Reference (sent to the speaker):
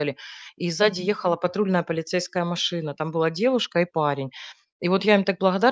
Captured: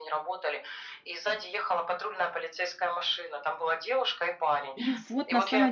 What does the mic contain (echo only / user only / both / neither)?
both